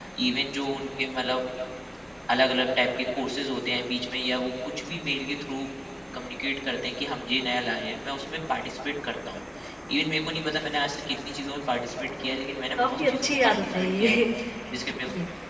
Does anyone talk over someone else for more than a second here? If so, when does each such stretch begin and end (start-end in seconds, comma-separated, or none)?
12.8-14.2